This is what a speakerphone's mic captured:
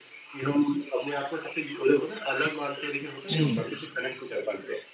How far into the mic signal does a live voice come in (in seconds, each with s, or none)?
3.3 s